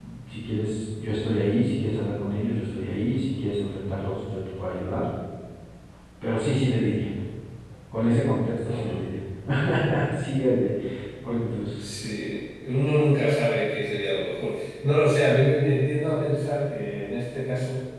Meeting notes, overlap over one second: none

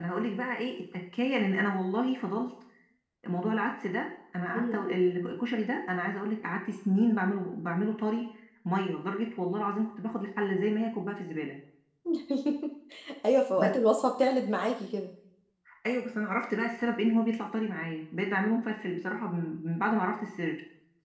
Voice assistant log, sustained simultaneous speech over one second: none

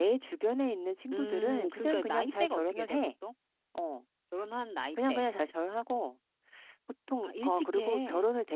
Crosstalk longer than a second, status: present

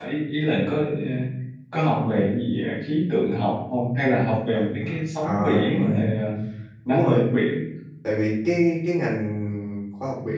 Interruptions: present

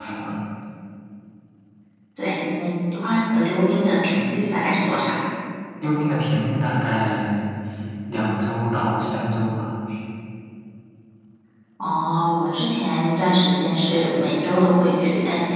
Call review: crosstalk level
none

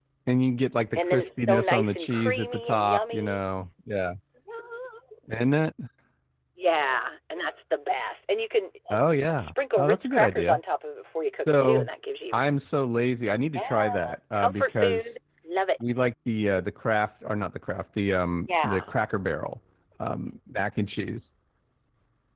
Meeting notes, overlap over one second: present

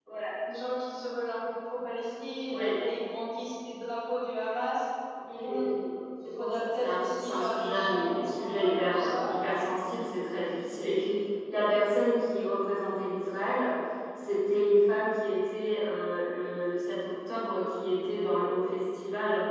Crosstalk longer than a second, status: present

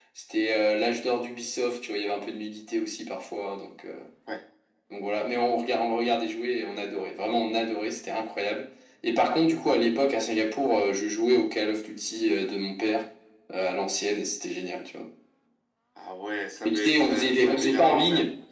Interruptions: present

